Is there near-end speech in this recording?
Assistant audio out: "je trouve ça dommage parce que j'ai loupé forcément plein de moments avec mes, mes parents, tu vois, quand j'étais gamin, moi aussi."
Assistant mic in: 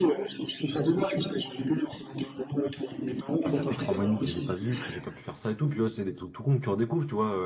Yes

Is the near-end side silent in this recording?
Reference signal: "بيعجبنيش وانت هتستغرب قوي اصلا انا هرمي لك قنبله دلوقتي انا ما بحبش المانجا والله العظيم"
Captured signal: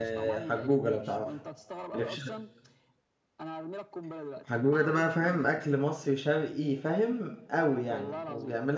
No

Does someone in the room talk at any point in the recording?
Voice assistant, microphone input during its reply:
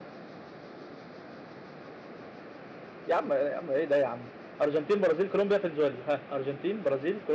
No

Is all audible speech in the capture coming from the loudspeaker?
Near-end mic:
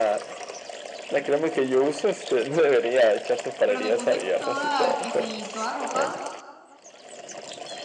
No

